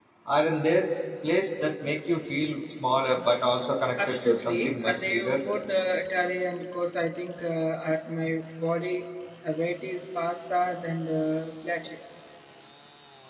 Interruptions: present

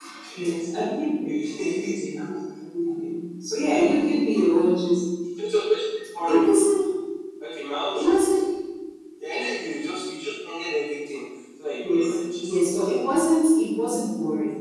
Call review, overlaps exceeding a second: present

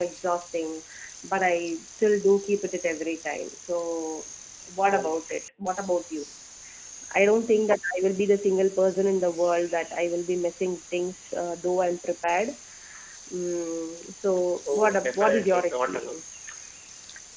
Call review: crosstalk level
present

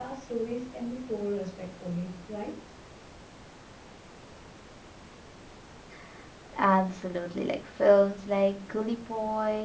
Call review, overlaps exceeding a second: none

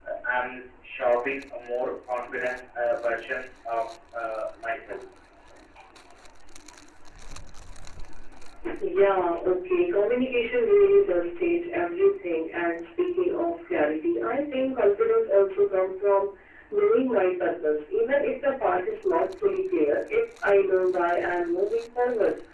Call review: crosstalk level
none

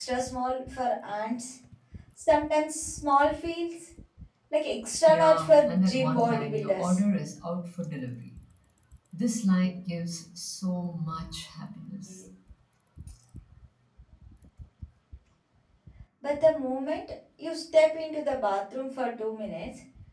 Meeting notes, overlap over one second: present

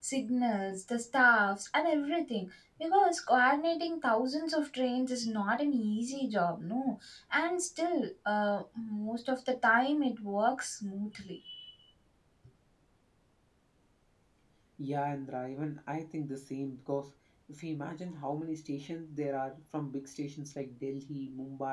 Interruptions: none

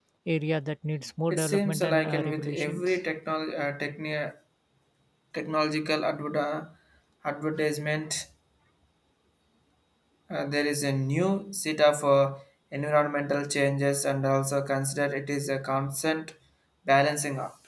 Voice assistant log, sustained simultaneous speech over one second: present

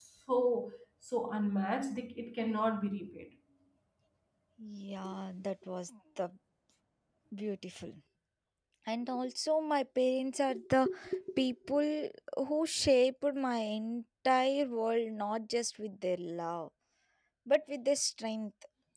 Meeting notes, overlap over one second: none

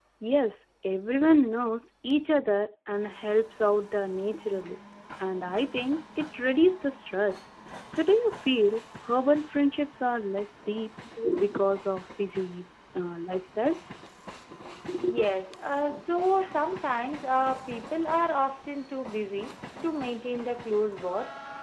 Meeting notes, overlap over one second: none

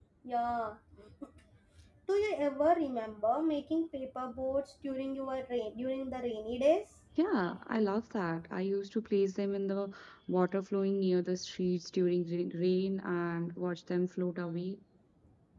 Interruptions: none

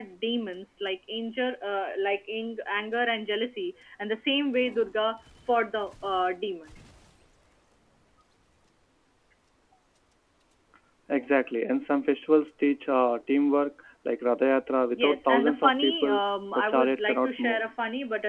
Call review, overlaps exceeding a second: present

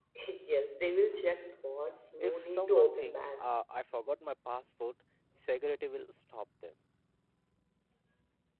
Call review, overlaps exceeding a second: present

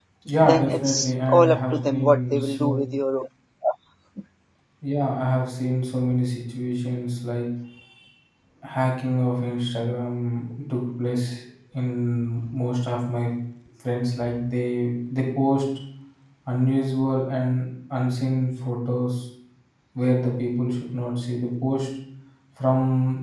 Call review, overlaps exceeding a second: present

